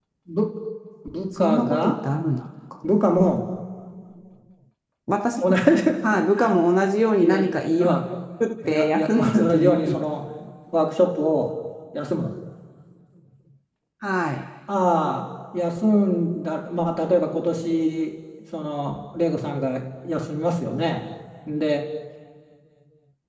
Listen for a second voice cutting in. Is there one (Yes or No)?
Yes